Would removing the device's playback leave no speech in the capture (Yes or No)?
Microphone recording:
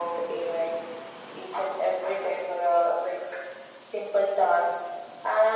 Yes